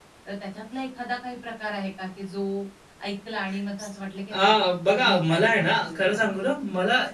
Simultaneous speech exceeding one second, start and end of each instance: 4.9-6.2

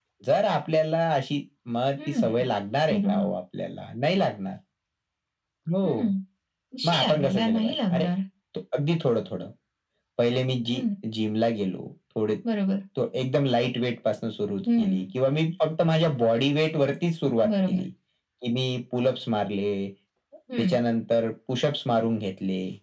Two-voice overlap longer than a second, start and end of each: 6.8-8.0

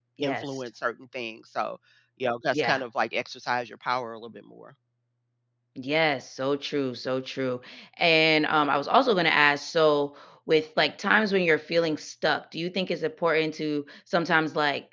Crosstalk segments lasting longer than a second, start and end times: none

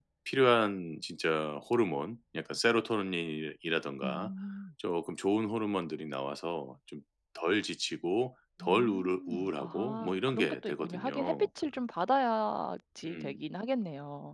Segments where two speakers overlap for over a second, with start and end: 8.6-11.5

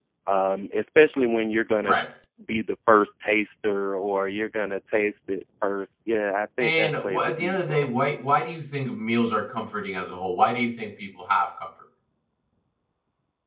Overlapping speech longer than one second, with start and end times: 6.6-7.9

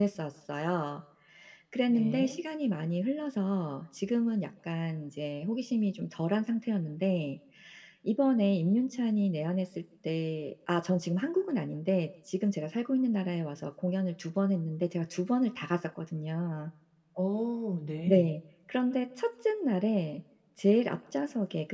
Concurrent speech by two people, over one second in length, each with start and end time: none

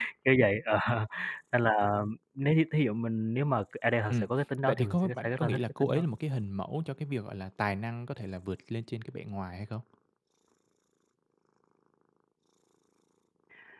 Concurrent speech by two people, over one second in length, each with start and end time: 4.7-6.1

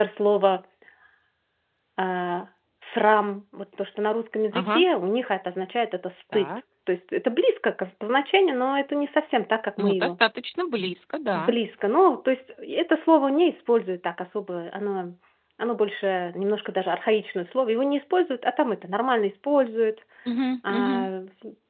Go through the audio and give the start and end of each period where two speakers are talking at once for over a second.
none

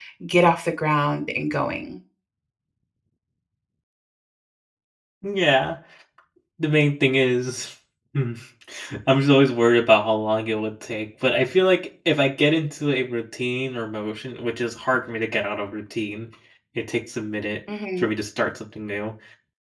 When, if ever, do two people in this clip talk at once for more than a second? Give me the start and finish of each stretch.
none

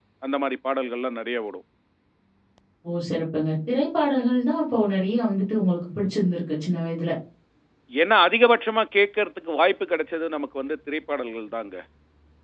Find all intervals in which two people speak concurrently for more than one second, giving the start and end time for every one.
none

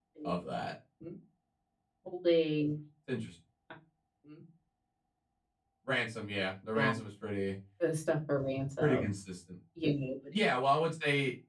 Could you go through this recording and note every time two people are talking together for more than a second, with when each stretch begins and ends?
none

